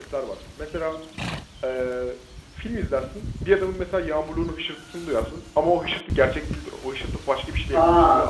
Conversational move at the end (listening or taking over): taking over